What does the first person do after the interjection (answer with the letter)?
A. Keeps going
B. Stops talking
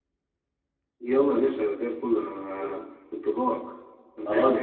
B